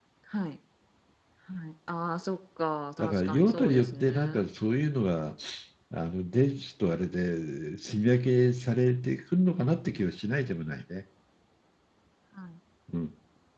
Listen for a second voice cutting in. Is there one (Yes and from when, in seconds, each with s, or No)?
Yes, from 3.0 s